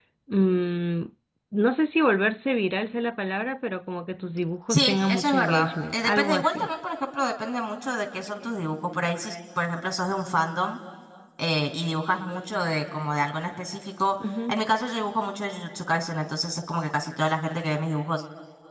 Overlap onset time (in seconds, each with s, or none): 4.7 s